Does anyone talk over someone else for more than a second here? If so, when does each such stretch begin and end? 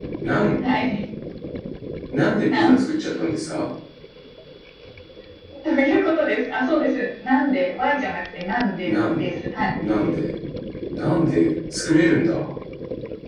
none

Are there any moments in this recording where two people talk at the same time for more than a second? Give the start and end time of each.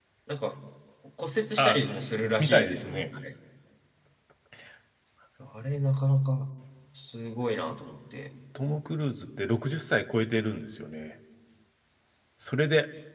1.6-3.0

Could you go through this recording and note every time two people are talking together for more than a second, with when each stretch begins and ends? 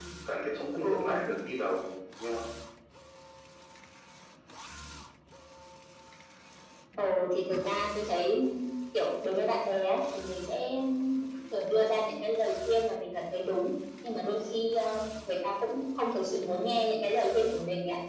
none

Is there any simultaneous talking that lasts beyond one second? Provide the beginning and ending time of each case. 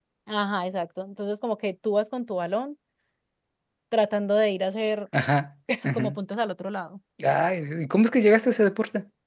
none

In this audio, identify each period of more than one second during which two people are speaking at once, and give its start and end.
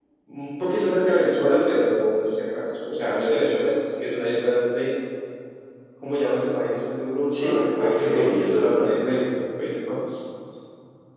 7.4-8.9

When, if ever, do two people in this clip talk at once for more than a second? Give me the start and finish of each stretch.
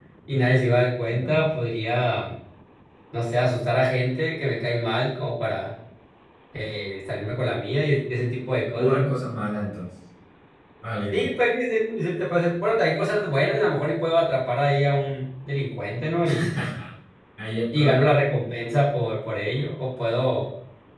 none

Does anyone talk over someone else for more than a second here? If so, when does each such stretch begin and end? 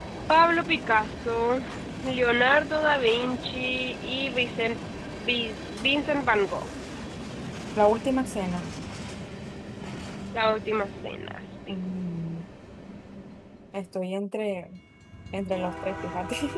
none

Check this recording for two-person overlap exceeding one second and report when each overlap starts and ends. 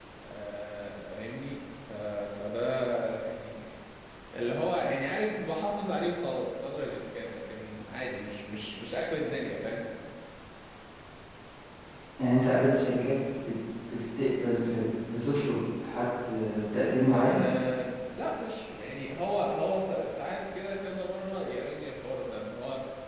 none

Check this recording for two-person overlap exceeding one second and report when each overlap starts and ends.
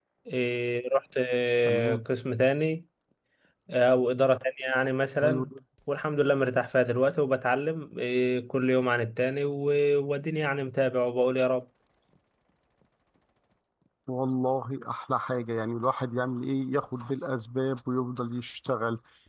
none

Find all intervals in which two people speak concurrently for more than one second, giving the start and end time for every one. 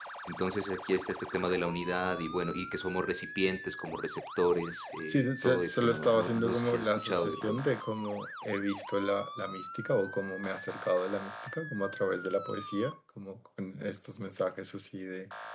5.1-7.6

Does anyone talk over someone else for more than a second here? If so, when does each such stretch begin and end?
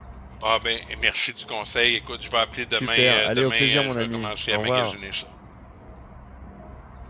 2.7-5.0

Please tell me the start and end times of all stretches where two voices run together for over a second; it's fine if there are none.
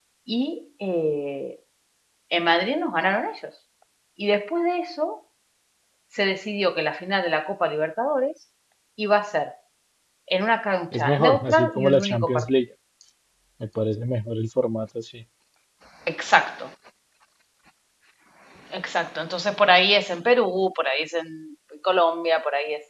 10.9-12.5

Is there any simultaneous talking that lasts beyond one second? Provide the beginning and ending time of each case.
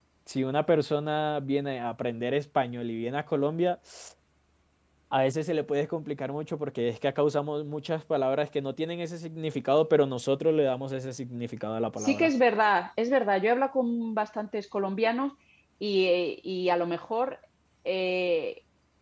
none

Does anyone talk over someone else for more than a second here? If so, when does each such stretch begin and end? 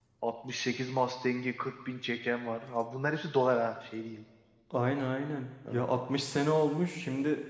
none

